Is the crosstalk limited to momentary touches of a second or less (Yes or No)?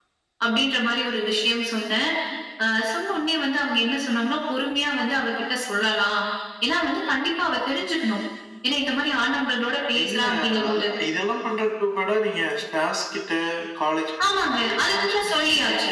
No